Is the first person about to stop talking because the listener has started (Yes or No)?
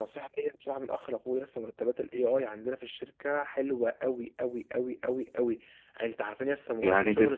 Yes